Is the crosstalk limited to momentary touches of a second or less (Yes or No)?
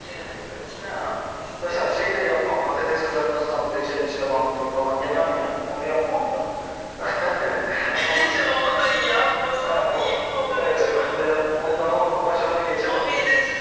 No